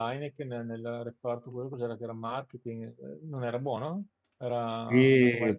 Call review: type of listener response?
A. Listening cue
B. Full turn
B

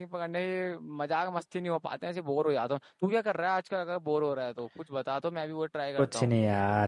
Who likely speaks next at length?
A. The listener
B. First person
A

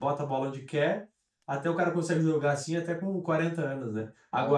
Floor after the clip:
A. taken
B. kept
B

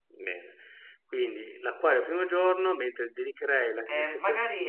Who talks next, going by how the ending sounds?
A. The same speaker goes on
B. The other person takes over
B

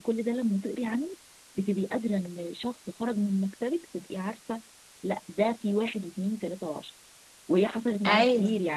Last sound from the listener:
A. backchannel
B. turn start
A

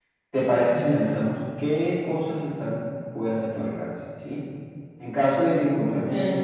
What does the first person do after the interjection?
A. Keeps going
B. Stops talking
A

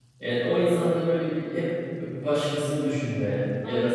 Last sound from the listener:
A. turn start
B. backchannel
B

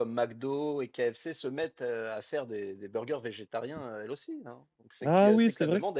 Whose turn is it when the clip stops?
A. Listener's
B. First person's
A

